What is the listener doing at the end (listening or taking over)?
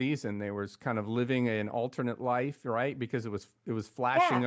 listening